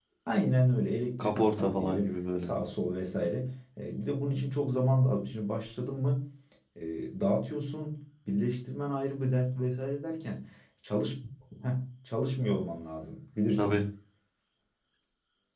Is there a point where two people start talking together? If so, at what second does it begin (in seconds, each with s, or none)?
1.2 s